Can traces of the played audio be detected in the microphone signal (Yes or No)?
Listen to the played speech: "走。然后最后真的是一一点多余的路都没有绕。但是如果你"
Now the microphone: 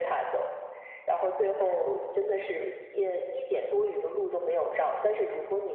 Yes